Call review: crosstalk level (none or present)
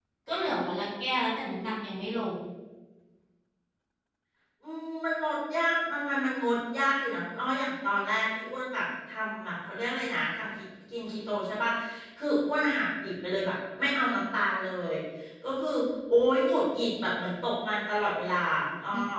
none